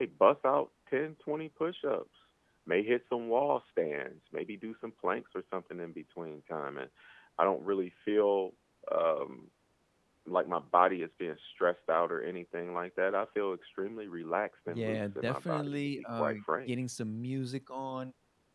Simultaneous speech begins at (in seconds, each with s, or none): 14.7 s